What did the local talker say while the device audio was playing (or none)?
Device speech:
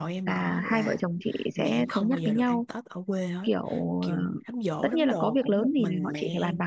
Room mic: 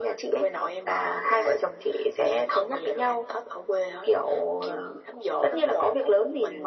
none